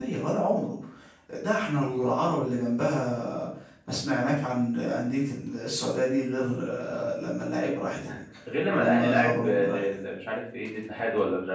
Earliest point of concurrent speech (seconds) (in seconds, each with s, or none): 8.7 s